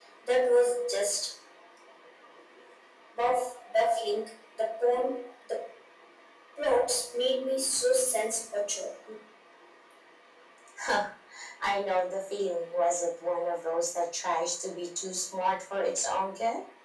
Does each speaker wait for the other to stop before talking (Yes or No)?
Yes